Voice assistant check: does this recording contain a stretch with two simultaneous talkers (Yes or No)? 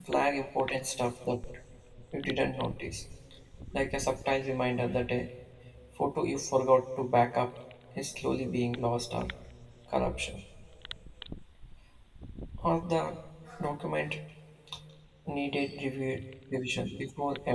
No